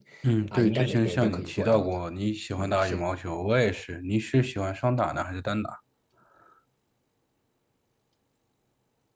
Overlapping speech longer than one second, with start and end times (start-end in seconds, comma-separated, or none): 0.5-2.0